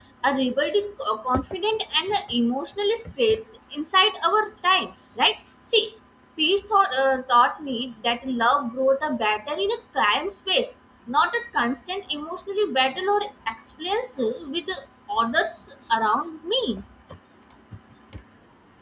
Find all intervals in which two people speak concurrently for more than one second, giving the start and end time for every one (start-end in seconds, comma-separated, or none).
none